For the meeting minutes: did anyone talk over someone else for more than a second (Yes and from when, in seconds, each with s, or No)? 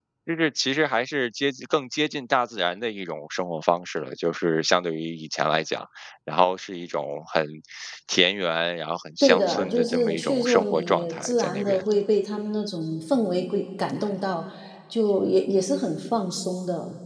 Yes, from 9.2 s